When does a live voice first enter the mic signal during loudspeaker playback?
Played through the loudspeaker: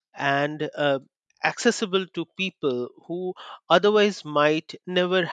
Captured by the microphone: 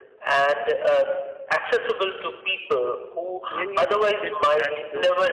3.5 s

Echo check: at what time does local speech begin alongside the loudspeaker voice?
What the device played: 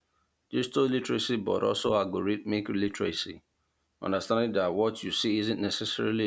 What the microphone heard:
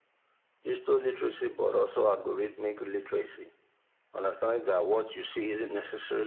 none

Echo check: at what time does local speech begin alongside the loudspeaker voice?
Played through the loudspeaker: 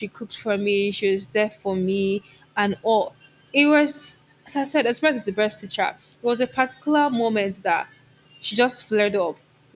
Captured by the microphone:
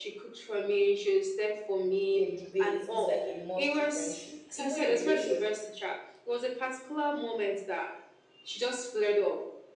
2.1 s

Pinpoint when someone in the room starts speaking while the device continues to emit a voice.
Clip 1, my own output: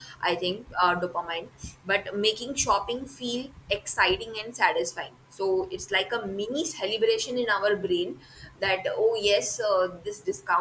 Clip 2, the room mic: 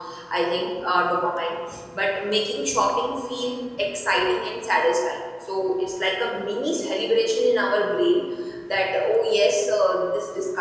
none

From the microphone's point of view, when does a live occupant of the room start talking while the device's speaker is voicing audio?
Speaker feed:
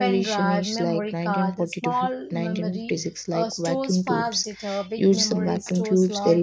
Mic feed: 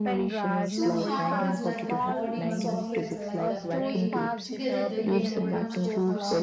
0.6 s

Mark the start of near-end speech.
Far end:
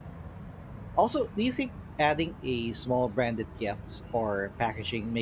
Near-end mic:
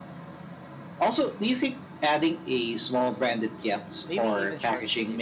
4.1 s

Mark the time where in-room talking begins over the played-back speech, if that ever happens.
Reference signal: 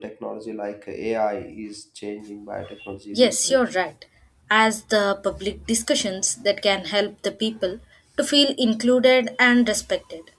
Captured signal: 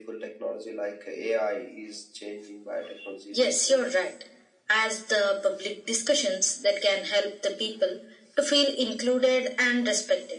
none

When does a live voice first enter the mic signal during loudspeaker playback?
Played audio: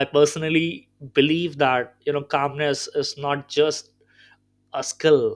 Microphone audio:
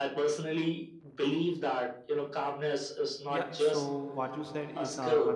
3.3 s

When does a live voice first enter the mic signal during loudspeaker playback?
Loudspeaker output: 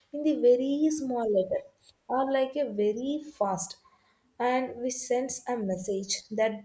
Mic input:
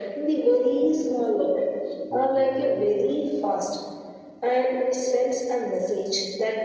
2.1 s

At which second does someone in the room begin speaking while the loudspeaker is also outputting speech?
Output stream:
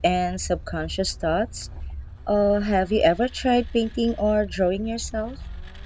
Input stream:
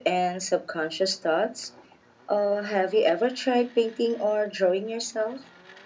none

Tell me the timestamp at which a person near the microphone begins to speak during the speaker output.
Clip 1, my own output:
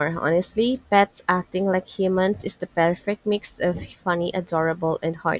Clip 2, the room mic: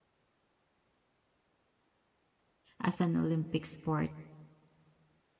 2.8 s

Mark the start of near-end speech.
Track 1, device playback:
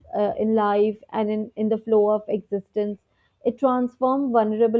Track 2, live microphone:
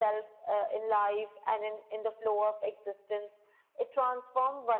none

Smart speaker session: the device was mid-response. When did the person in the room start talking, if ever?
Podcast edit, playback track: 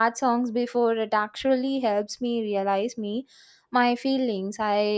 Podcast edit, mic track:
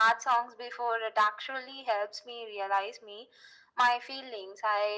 none

